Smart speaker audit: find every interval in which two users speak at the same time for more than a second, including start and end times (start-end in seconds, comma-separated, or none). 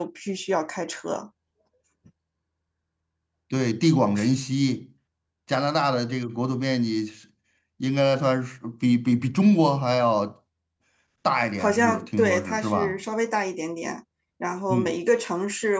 11.6-13.0